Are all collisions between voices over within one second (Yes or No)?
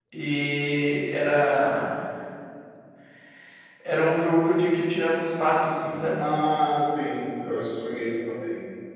Yes